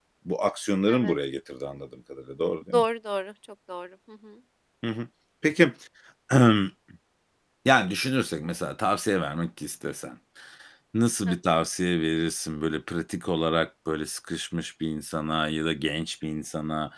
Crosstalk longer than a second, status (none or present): none